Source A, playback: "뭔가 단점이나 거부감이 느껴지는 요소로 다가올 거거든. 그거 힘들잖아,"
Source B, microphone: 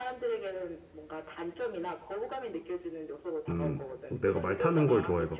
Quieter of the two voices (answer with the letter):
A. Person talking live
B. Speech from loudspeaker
B